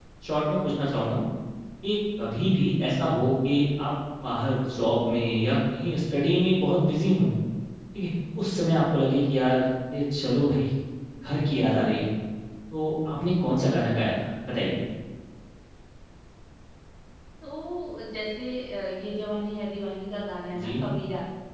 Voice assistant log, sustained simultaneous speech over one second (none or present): none